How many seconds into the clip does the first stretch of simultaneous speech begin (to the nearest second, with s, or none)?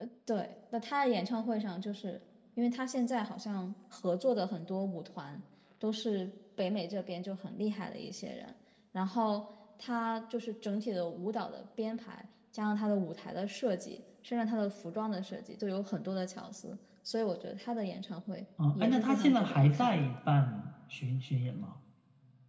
19 s